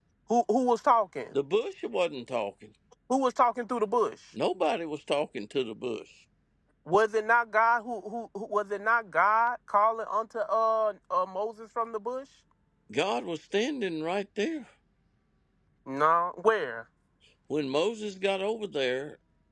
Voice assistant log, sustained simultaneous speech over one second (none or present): none